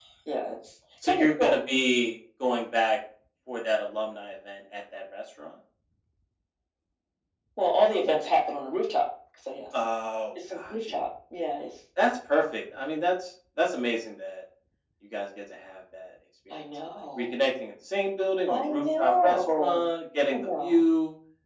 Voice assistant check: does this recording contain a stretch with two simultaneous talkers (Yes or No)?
Yes